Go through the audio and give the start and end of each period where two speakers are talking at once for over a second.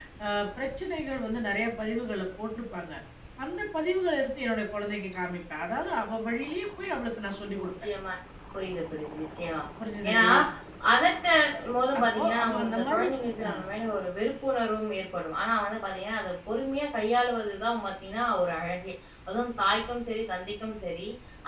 12.0-13.7

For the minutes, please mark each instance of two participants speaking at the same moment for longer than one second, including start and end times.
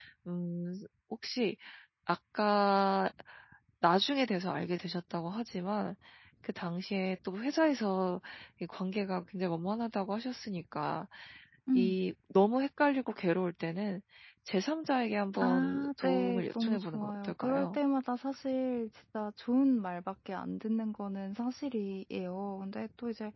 15.4-17.8

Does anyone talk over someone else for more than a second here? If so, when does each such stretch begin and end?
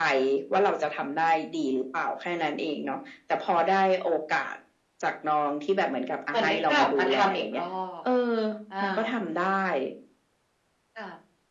6.3-7.6

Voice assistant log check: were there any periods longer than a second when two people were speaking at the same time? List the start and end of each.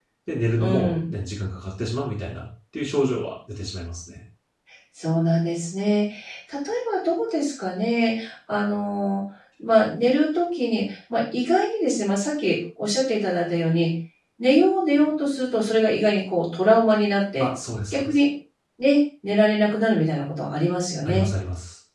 none

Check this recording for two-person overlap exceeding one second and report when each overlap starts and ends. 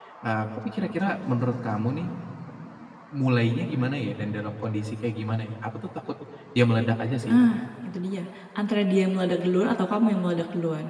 none

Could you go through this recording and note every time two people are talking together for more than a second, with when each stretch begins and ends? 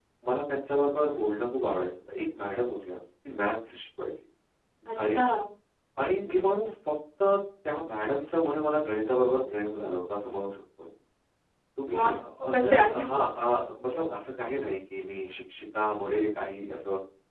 11.9-13.1

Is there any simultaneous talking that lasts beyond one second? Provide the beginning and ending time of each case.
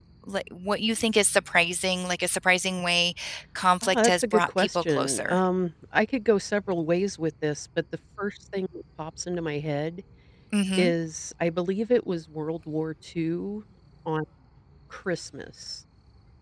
3.8-5.4

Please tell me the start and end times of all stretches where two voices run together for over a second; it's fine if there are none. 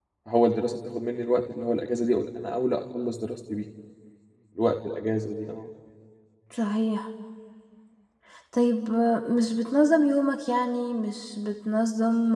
none

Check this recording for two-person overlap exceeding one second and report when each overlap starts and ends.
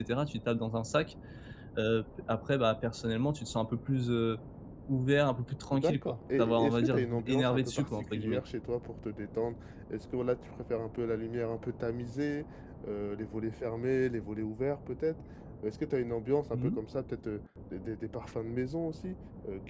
5.7-8.4

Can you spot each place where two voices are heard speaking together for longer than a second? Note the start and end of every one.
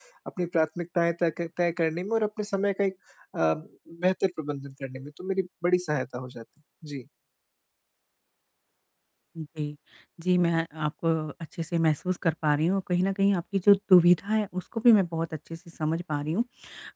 none

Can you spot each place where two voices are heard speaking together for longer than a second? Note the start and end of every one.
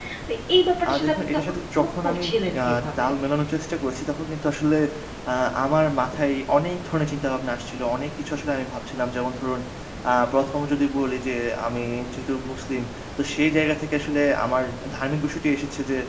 0.9-2.2

